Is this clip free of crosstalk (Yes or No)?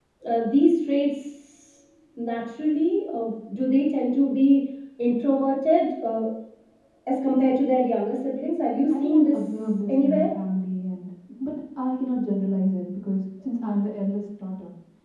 No